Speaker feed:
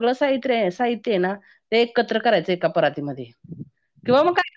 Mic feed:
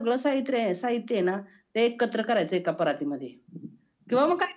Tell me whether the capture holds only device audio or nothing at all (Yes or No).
Yes